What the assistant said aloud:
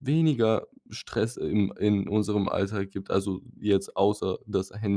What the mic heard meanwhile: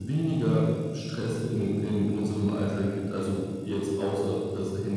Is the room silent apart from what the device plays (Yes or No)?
Yes